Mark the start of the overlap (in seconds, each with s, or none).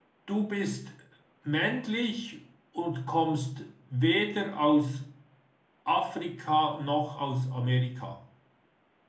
none